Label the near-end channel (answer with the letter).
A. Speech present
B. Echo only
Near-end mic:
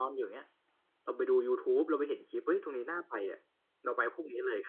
B